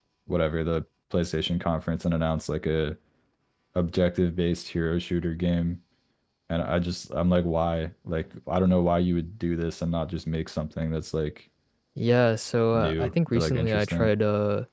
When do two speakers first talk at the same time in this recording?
12.7 s

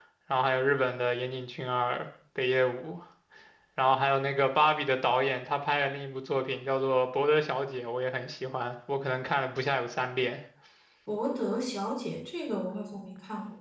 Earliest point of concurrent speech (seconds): none

